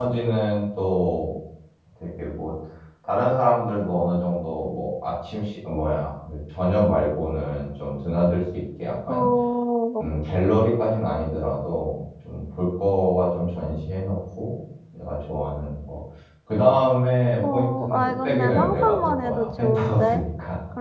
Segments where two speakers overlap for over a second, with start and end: 17.5-20.2

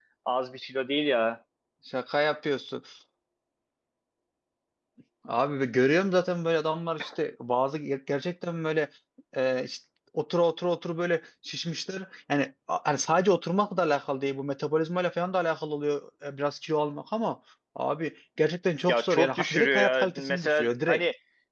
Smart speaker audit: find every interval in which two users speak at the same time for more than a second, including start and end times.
18.9-21.0

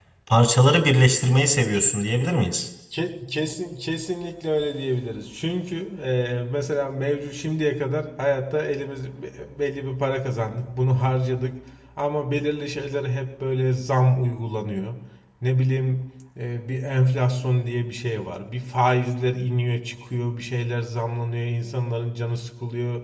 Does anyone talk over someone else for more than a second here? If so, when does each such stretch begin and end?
none

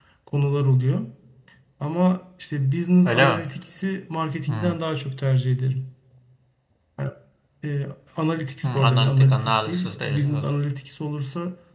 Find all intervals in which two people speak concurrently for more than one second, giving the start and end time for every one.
8.6-10.4

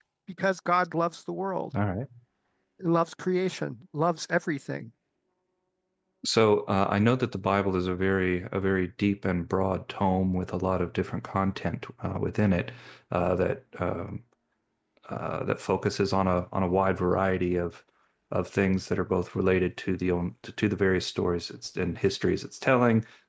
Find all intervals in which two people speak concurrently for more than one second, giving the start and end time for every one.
none

